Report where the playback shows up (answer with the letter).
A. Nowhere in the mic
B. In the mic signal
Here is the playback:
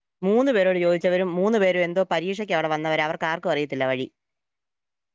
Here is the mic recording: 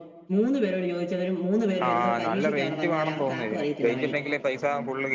B